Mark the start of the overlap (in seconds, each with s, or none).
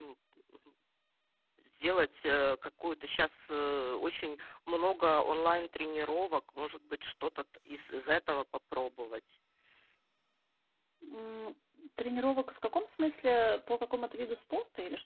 none